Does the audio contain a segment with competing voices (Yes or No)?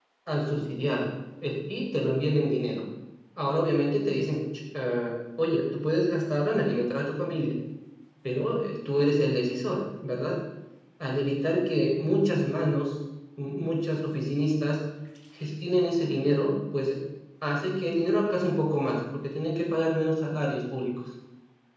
No